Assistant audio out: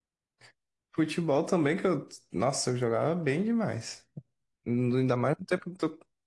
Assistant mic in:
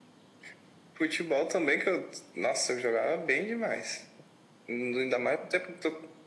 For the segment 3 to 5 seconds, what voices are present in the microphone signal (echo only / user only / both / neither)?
echo only